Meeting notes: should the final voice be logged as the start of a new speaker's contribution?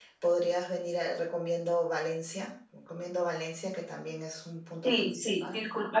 Yes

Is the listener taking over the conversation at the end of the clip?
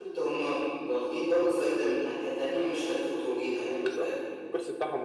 Yes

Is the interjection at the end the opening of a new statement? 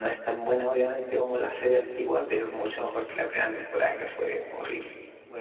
Yes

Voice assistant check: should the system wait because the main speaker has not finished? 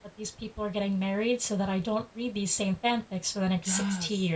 No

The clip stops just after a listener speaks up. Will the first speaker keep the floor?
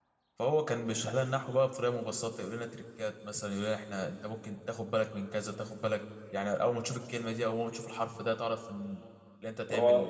No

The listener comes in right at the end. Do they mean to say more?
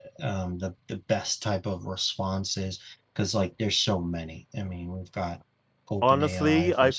Yes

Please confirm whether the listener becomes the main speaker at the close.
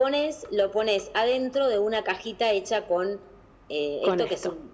No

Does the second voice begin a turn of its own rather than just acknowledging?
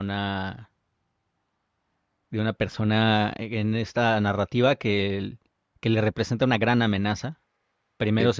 No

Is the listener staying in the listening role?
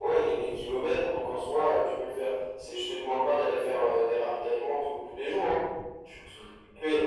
Yes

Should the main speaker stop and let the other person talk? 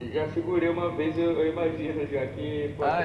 No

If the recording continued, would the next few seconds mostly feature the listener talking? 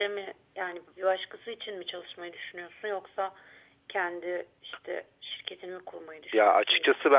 Yes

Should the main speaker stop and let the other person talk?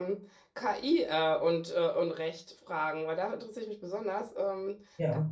No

